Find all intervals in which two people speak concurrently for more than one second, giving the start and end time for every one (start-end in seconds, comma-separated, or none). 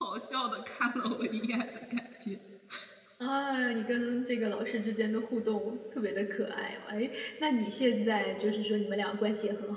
none